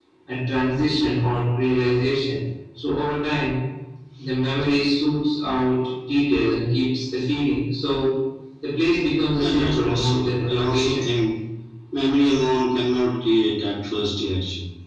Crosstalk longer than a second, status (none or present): present